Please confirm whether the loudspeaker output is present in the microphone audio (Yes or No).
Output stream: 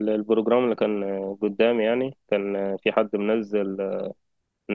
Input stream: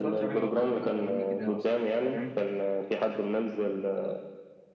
Yes